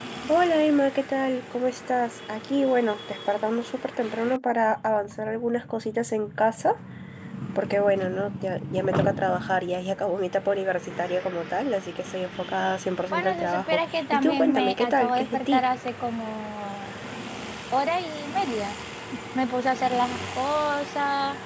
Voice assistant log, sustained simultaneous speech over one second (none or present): present